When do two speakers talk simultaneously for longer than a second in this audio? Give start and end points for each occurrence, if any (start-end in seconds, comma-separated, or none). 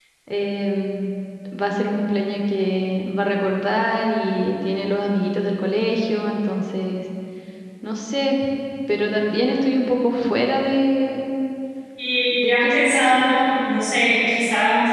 12.3-13.7